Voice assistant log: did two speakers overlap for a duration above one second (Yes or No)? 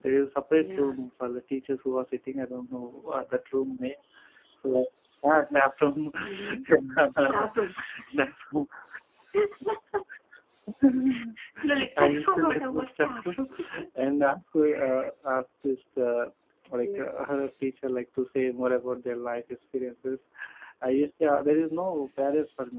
Yes